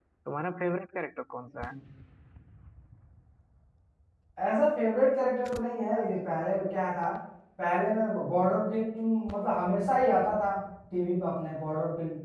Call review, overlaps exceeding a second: none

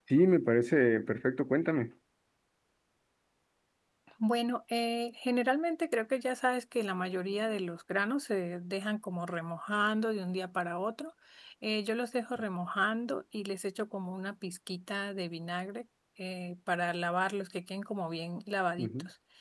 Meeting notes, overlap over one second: none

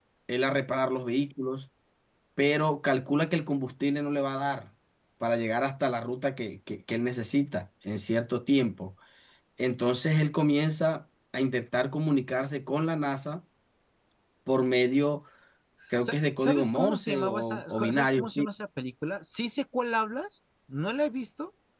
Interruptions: present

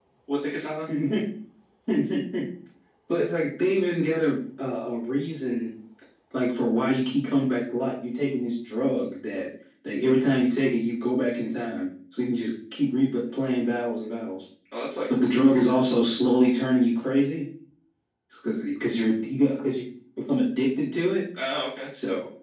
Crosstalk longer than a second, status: none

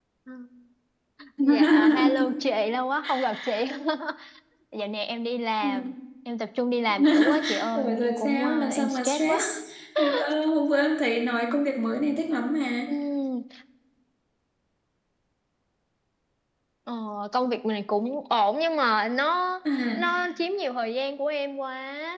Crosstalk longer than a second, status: present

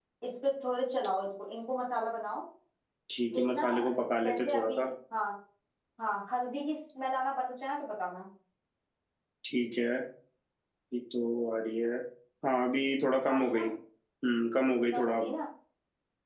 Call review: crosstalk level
present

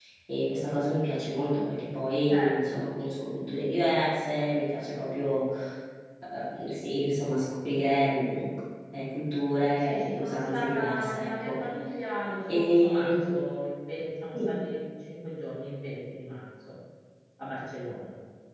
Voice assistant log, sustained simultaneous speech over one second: present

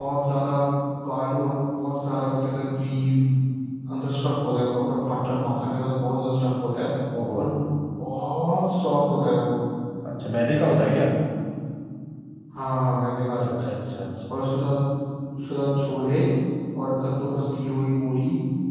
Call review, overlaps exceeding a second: none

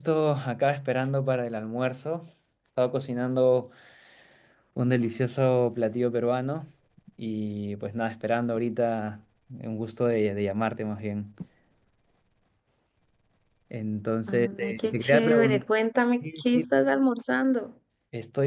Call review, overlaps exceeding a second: present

